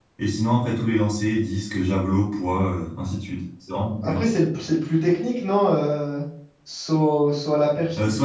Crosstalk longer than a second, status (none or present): none